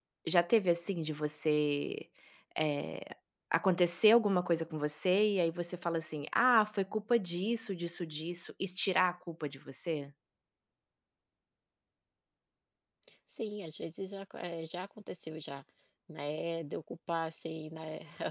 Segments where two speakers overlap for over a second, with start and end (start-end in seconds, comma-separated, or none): none